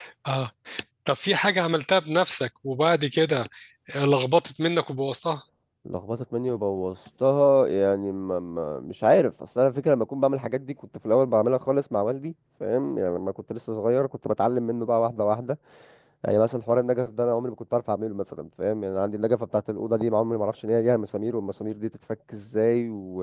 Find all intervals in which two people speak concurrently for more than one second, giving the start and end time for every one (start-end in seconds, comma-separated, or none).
none